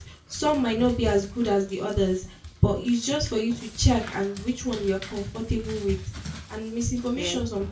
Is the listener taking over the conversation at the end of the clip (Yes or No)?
No